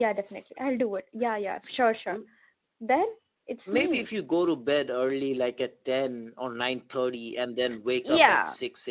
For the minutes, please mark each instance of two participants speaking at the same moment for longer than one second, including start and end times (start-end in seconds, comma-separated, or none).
none